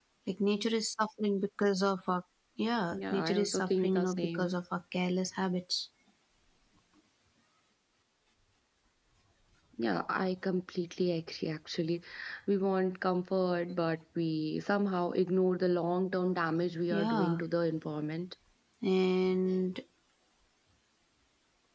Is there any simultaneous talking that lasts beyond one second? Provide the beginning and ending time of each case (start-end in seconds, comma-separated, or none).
2.9-4.5